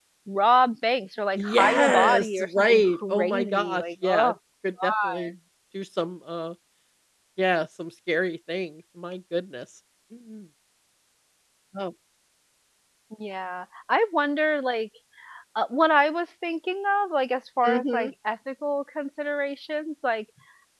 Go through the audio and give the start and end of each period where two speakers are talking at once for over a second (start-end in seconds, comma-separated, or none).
1.4-4.3